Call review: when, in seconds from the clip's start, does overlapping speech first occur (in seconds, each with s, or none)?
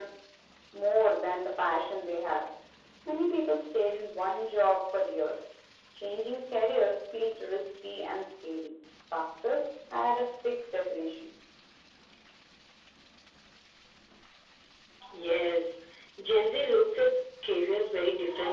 none